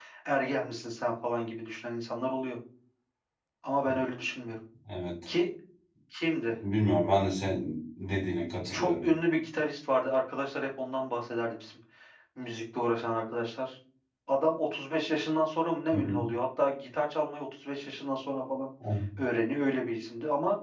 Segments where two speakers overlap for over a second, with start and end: none

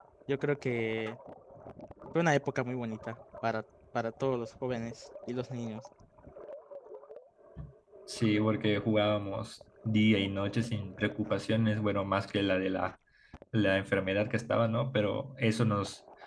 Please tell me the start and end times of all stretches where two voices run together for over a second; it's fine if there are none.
none

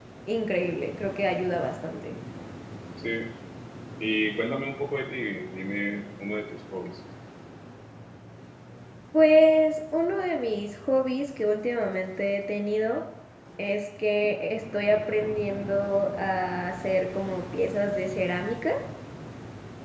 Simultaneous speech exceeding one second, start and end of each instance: none

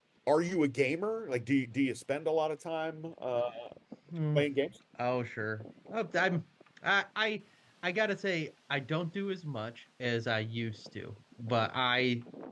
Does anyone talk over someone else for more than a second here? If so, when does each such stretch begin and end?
none

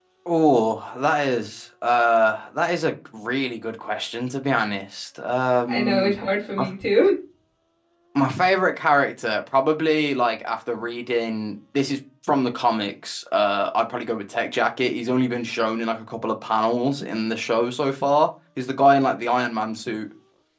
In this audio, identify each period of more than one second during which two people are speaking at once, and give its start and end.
none

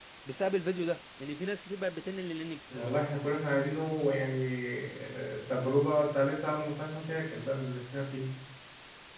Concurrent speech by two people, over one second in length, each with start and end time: none

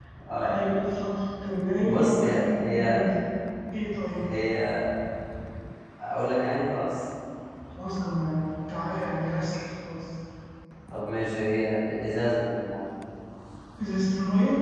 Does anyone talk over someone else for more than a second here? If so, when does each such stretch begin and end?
1.8-3.0

